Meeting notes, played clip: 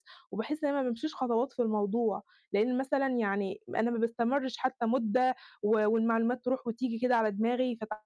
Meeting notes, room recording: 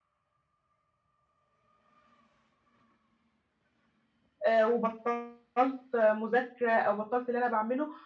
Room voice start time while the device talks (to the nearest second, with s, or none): 4 s